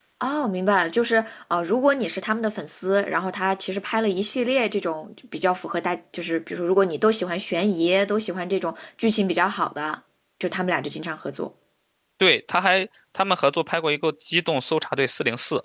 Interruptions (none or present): none